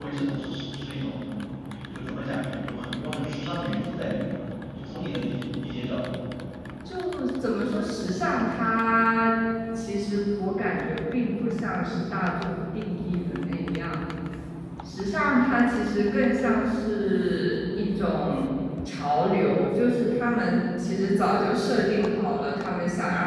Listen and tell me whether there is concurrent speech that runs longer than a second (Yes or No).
No